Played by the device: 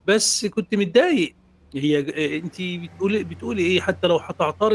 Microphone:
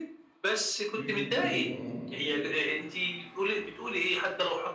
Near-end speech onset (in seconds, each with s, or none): 1.0 s